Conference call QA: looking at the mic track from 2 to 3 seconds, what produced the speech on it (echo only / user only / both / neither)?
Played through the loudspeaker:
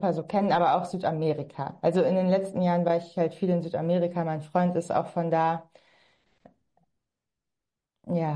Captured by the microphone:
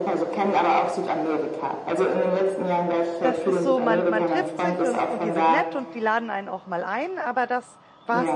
echo only